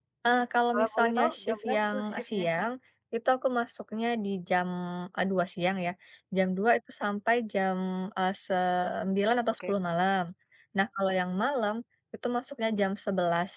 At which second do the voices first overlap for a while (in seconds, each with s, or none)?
0.7 s